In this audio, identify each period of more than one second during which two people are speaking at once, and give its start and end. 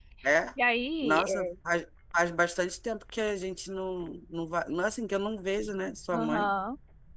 none

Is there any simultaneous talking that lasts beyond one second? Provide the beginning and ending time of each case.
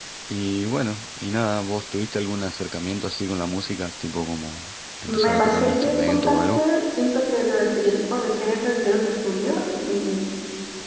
5.1-6.6

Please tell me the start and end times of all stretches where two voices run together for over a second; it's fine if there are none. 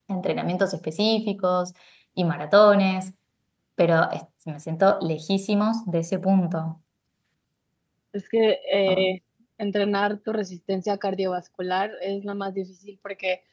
none

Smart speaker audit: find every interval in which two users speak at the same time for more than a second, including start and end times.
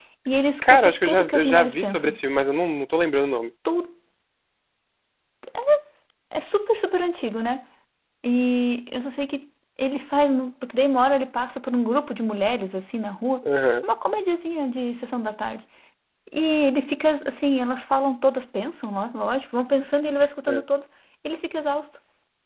0.6-2.2

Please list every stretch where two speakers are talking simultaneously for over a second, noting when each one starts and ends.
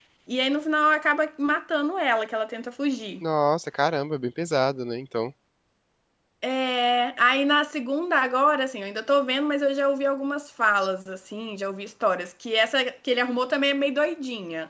none

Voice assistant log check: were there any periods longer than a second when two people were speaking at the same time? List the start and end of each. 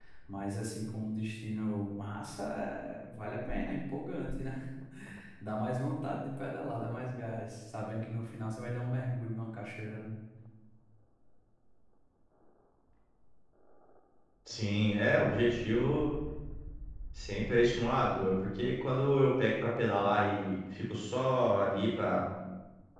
none

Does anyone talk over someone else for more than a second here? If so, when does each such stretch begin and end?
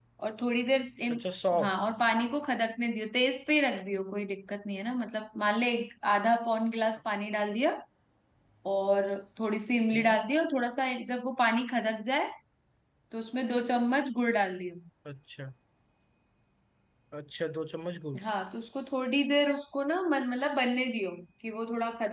none

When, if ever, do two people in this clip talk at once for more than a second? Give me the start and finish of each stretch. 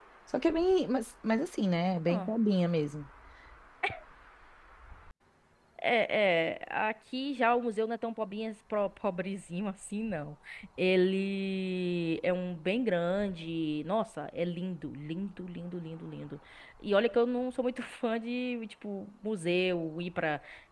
none

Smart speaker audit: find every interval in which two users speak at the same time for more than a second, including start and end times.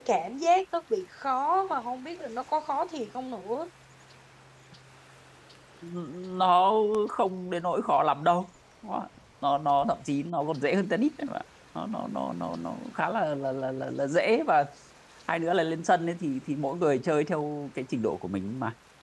none

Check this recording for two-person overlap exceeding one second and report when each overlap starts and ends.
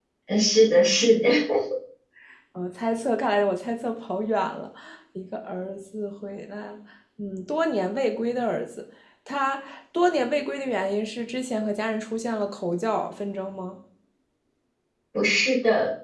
none

